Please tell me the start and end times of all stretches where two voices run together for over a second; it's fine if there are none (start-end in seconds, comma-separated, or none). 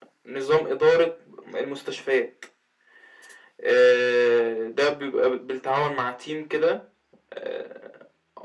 none